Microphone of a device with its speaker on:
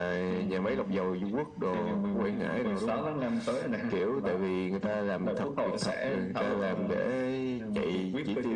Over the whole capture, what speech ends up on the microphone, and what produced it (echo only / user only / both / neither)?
echo only